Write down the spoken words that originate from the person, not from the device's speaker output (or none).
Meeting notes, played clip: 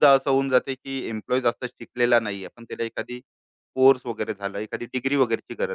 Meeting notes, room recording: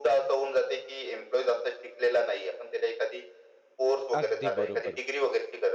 अगदी बरोबर.